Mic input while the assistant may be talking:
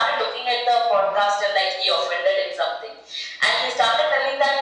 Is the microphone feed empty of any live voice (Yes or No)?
Yes